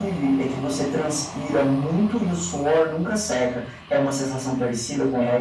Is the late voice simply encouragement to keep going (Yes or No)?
No